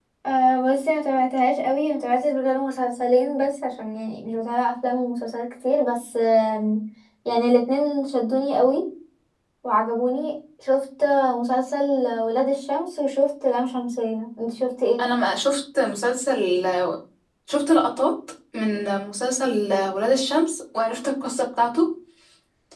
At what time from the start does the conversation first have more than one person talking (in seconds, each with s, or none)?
none